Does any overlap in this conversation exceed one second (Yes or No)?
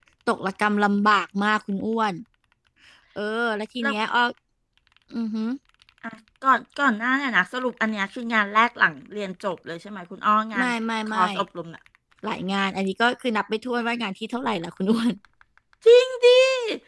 No